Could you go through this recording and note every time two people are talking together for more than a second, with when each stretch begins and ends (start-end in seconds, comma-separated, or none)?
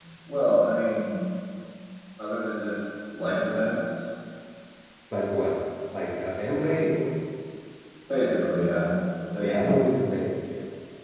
none